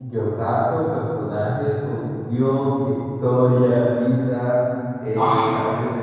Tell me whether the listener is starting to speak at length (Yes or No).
No